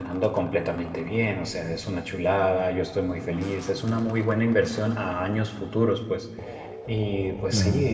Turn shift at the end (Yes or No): No